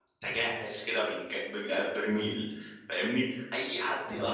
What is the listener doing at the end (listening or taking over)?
taking over